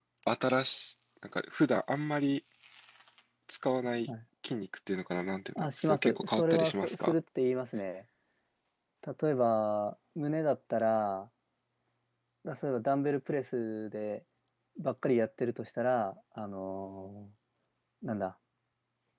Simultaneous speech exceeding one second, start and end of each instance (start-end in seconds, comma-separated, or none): 5.6-7.1